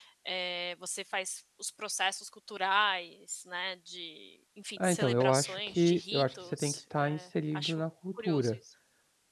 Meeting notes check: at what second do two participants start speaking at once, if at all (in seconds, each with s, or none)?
4.8 s